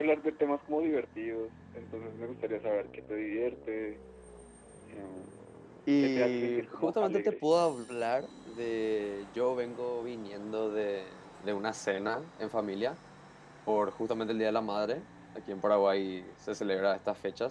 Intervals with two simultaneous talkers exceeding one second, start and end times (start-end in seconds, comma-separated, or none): 6.0-7.4